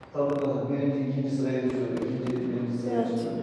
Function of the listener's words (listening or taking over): listening